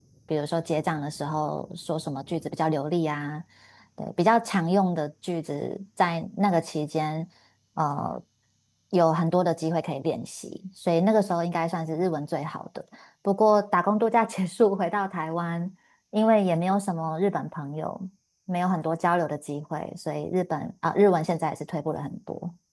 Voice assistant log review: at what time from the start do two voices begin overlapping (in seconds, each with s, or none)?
none